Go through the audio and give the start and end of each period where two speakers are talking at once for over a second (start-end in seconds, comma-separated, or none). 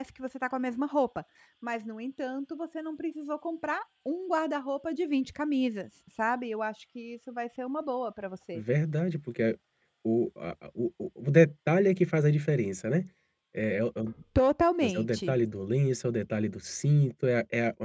none